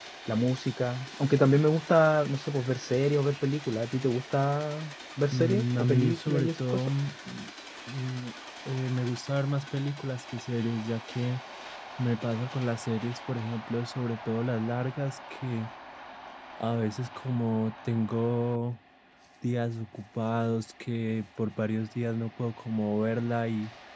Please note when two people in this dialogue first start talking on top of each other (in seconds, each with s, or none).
5.3 s